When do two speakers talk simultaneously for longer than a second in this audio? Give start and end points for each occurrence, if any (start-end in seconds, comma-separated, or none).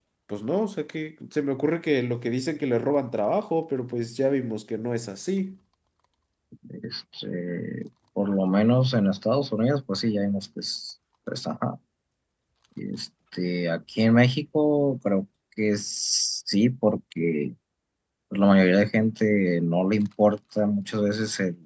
none